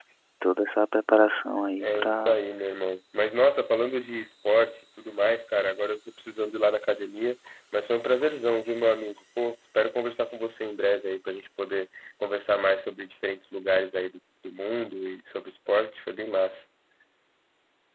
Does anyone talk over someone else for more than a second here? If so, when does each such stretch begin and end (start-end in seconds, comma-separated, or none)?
none